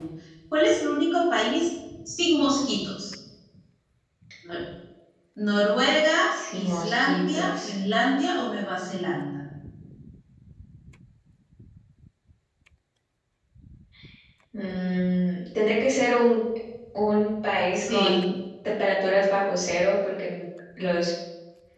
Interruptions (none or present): present